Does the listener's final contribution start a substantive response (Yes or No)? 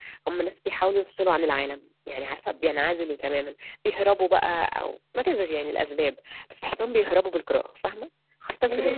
Yes